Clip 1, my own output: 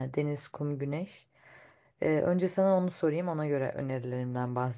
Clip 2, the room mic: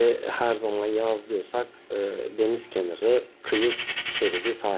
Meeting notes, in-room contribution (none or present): present